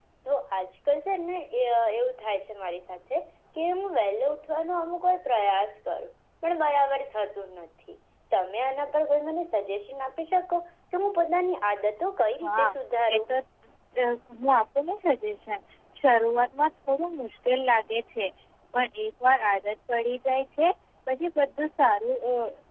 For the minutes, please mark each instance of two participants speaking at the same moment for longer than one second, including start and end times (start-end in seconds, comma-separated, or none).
none